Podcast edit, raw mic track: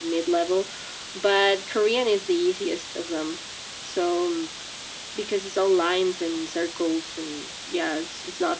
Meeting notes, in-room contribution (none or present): none